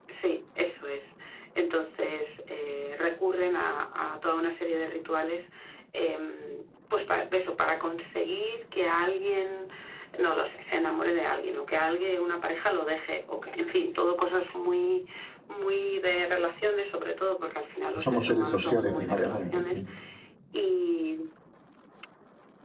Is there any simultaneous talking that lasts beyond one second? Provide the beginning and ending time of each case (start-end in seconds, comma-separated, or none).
18.0-19.8